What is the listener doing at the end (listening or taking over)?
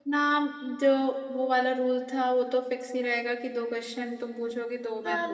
taking over